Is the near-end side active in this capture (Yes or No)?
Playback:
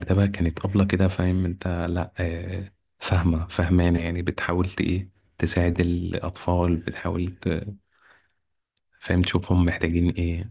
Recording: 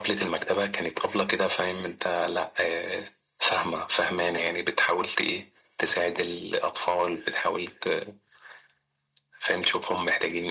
No